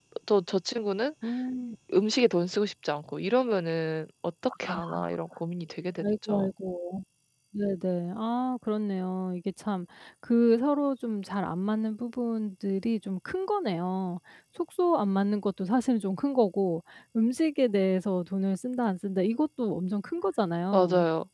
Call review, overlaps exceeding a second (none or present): none